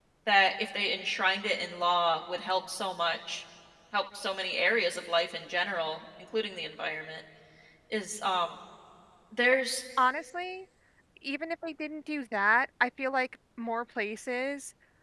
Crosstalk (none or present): none